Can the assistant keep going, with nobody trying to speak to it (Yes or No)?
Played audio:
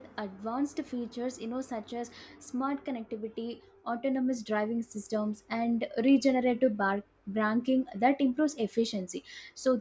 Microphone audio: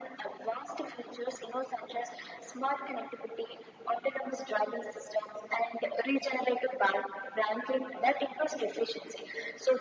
Yes